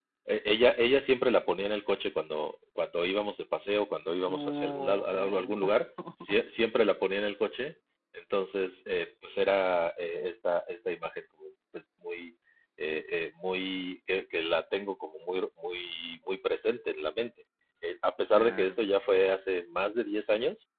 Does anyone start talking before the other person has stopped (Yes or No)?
Yes